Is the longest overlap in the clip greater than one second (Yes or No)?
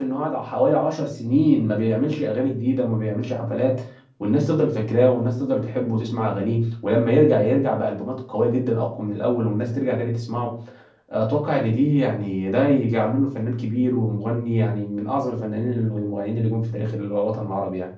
No